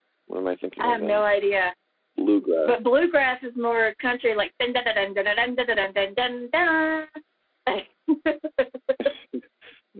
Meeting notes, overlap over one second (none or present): none